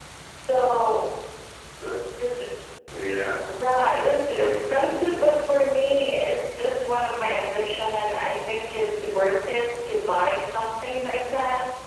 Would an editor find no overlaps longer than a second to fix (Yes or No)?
No